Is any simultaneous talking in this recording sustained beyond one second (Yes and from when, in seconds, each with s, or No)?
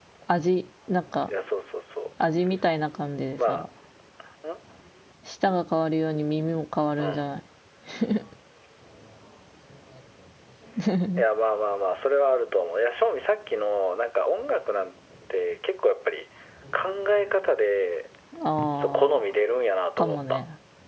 No